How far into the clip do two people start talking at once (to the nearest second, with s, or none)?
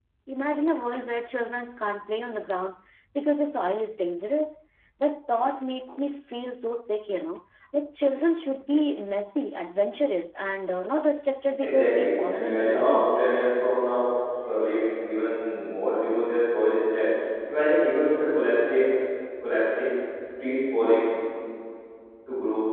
12 s